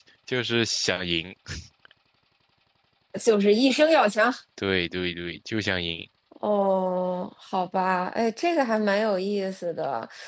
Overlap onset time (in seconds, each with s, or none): none